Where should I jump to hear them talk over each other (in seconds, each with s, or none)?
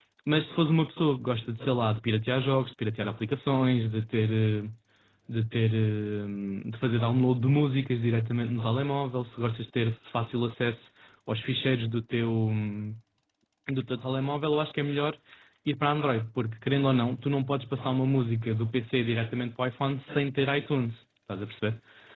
none